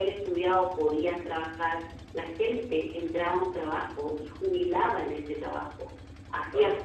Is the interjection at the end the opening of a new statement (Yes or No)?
No